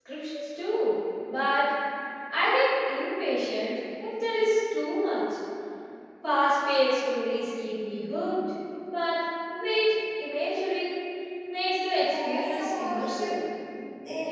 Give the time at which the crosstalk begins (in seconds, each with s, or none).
11.9 s